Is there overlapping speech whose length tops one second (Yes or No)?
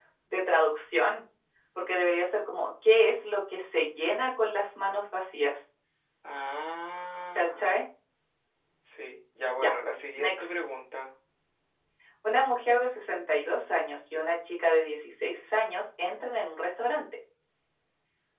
No